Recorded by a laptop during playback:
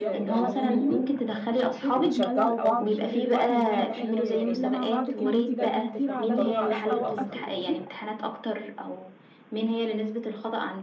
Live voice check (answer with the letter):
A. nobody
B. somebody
B